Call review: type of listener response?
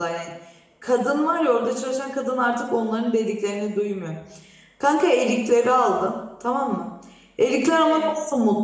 listening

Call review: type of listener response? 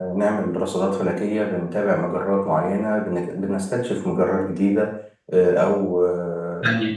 taking over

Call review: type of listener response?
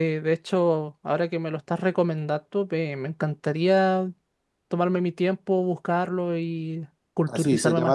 taking over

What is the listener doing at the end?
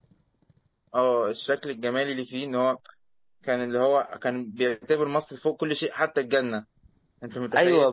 taking over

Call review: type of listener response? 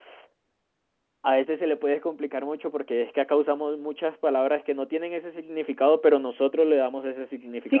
taking over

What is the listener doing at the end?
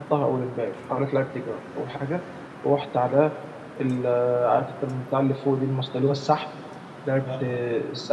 listening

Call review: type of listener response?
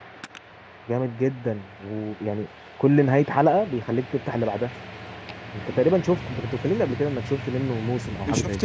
taking over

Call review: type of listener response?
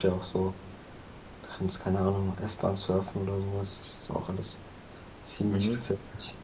taking over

